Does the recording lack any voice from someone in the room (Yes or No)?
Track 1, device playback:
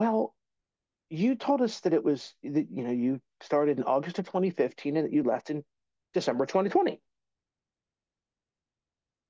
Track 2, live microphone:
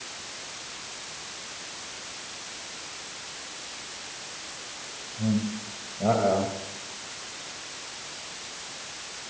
No